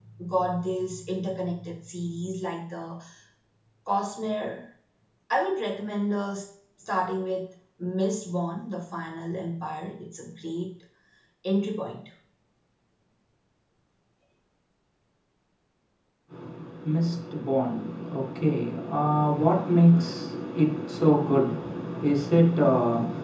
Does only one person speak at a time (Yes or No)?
Yes